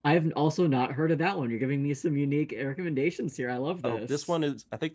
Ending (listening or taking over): taking over